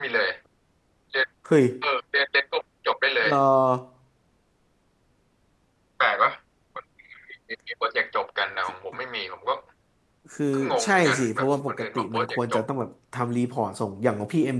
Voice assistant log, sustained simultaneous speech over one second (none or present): present